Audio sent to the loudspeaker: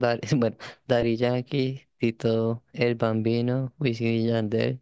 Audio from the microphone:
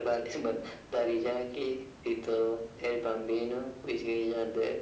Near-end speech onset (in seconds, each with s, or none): none